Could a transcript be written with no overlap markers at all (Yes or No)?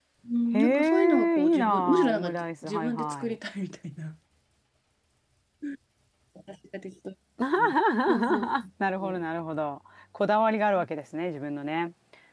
No